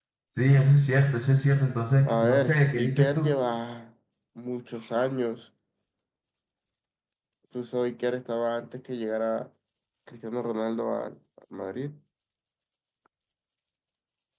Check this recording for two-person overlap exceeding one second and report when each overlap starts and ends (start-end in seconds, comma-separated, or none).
2.0-3.4